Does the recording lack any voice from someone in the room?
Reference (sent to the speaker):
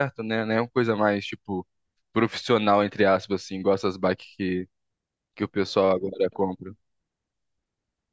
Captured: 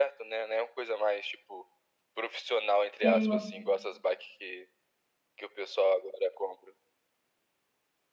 No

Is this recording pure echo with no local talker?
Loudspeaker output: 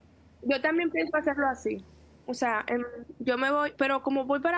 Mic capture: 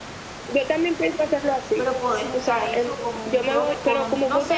No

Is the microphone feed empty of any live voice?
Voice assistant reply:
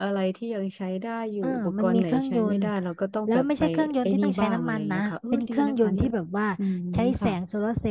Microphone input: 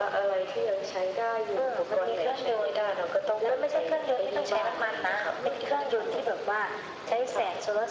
Yes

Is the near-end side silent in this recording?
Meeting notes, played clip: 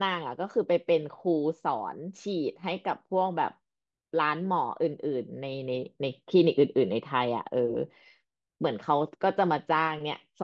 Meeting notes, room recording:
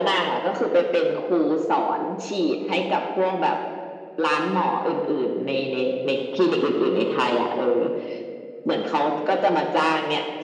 Yes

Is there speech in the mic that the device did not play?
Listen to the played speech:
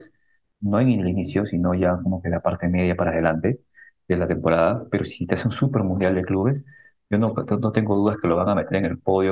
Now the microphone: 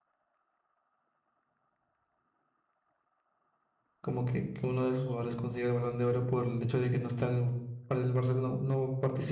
Yes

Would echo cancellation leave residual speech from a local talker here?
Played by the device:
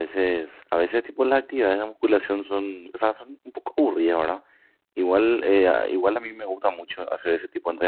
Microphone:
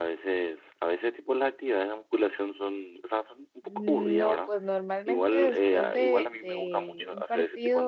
Yes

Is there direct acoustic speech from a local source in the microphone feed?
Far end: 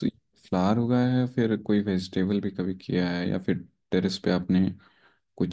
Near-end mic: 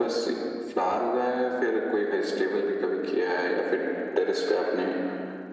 No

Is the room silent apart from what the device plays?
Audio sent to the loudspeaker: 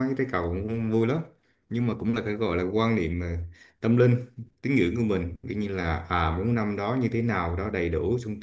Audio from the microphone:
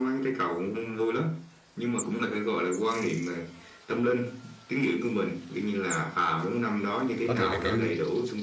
No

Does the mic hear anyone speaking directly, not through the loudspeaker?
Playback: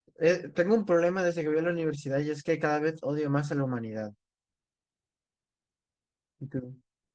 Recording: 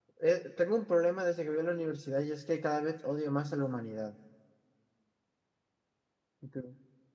No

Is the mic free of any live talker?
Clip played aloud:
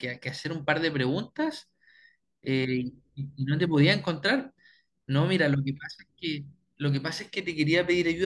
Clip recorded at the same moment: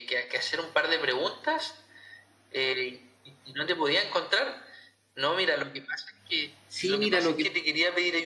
No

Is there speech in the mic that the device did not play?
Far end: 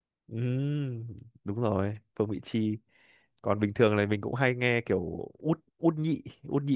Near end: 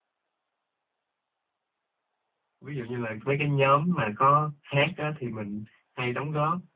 Yes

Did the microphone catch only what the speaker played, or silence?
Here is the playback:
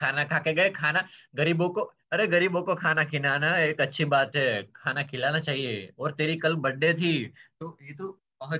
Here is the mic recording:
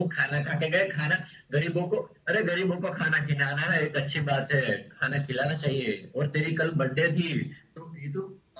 Yes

